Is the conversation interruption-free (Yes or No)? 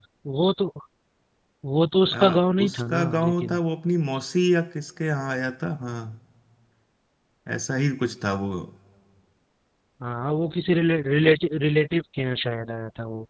No